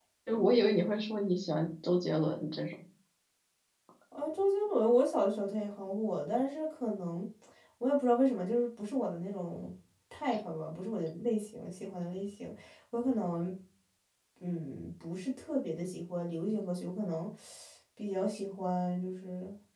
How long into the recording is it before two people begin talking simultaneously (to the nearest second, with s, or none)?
none